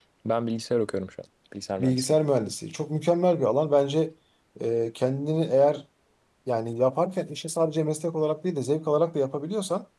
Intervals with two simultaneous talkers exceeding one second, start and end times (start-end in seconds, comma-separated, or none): none